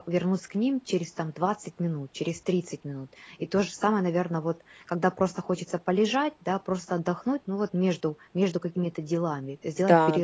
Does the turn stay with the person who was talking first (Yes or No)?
No